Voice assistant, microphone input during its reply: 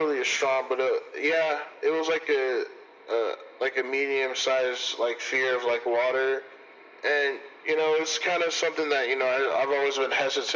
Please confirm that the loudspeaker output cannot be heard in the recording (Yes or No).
No